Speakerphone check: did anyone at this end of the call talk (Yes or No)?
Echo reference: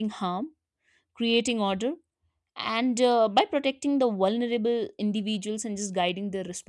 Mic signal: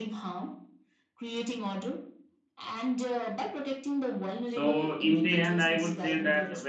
Yes